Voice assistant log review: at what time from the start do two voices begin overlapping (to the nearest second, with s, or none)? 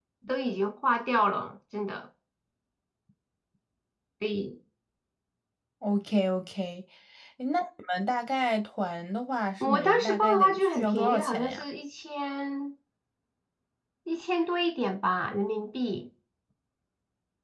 10 s